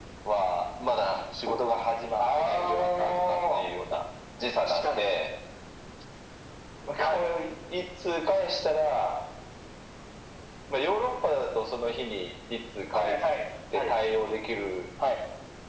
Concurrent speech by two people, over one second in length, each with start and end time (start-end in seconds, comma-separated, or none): 2.2-3.7